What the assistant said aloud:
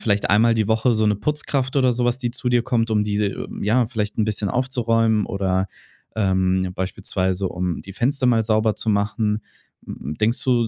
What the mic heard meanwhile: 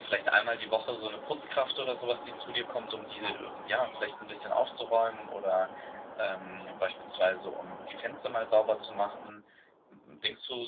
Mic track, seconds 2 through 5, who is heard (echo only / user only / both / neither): echo only